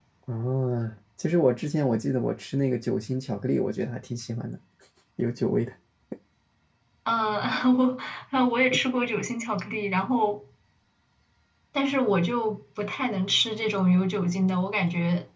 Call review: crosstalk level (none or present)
none